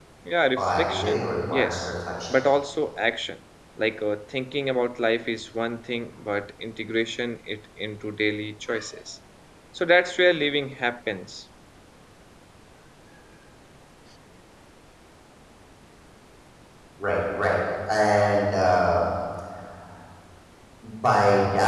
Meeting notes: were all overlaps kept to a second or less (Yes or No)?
No